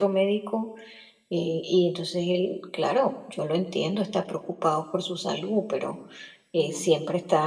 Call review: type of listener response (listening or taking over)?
listening